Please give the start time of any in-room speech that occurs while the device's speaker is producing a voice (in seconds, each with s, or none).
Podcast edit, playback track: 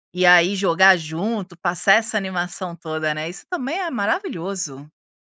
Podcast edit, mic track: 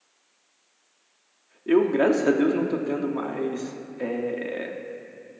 1.6 s